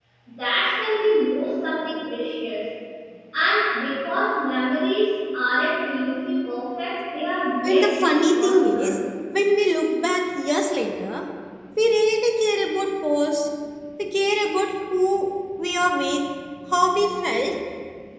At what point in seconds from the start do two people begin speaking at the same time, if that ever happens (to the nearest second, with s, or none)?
8 s